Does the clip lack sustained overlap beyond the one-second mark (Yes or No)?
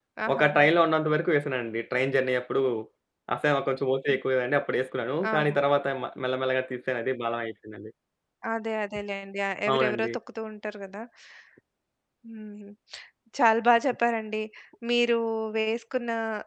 Yes